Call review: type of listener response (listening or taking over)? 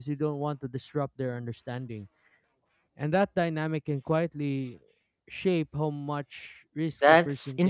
taking over